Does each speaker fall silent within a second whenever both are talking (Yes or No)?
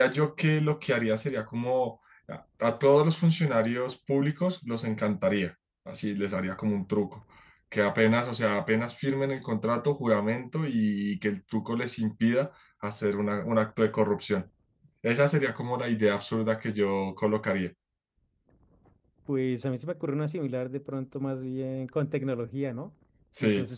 Yes